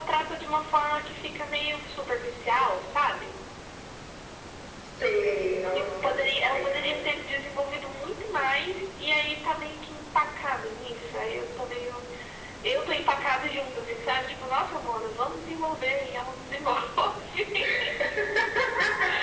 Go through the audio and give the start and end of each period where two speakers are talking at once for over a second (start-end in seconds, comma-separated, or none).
5.7-7.0